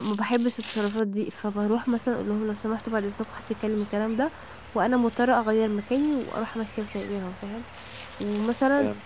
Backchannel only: Yes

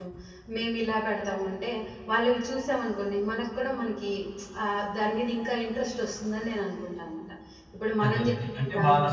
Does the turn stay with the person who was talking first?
No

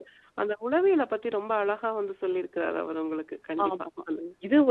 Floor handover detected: Yes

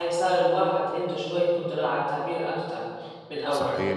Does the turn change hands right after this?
Yes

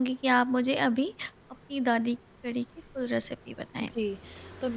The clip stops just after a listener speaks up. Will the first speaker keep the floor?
No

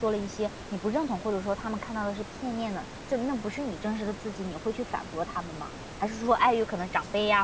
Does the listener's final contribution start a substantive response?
No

